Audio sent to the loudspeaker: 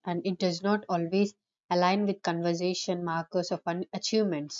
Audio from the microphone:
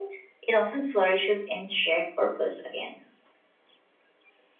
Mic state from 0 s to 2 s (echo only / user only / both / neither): user only